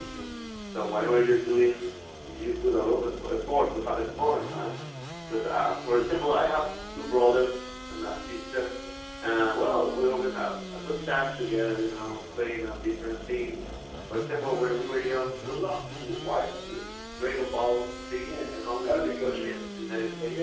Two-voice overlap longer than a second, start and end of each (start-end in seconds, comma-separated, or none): 18.2-19.6